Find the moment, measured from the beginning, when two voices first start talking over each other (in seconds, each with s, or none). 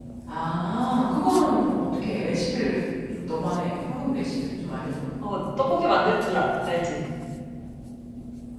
none